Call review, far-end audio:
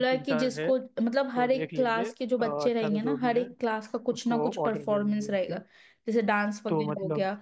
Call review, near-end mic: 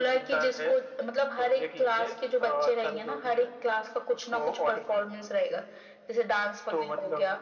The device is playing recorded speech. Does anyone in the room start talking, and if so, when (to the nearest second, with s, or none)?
none